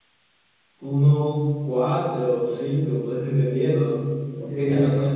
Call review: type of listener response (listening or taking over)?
listening